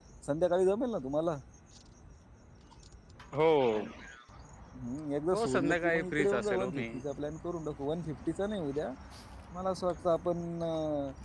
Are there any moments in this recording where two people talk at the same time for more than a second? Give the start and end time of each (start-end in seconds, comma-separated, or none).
5.3-6.8